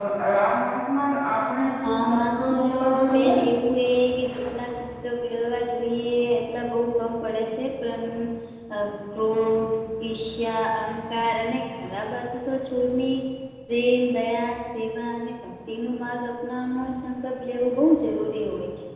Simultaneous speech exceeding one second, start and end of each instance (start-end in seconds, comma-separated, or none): 1.8-3.3